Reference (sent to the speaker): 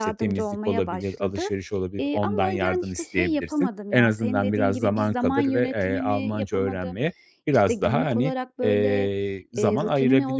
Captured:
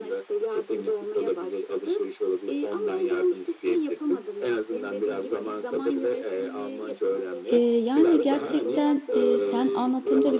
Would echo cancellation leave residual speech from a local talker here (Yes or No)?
Yes